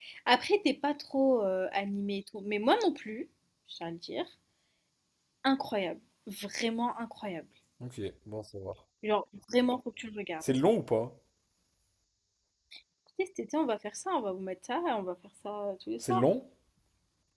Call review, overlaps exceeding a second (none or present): none